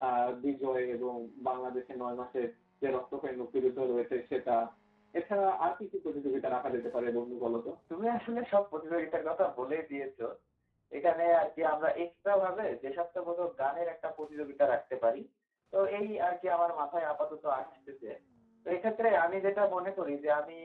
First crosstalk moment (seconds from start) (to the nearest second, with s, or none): none